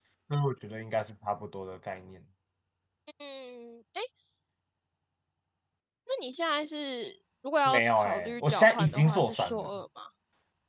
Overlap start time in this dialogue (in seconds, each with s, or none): 7.7 s